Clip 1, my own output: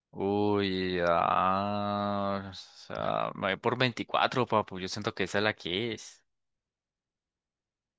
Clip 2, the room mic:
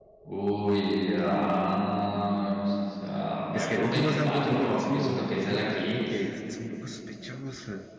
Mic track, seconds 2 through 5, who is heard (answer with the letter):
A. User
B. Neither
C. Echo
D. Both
D